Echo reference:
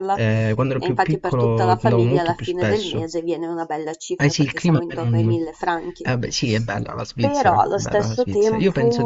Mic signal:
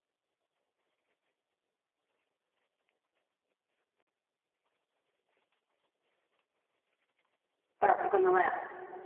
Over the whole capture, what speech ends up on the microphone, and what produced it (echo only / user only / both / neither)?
user only